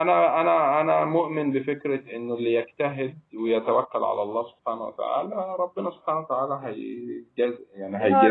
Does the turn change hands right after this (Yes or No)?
Yes